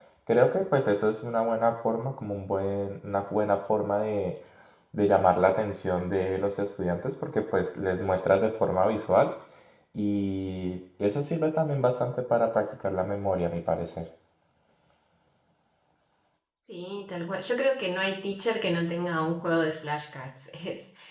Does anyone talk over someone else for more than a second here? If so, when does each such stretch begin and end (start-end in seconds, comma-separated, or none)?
none